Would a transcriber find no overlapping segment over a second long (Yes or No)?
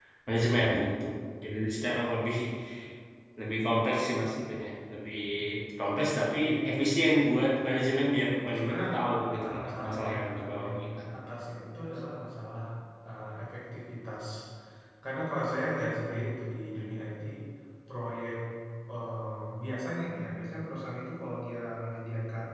No